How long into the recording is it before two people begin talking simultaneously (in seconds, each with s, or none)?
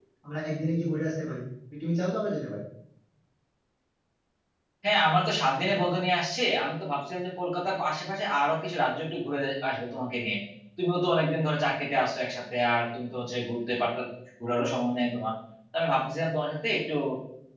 none